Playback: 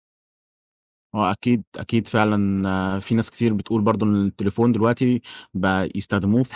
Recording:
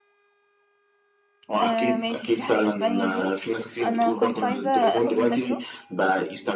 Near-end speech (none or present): present